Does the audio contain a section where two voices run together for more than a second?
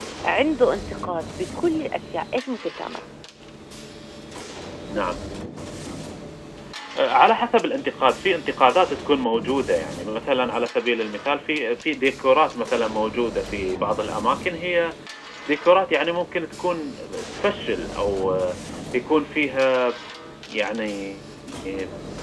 No

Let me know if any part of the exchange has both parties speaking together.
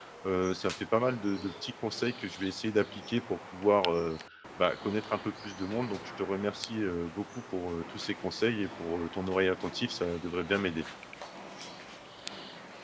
No

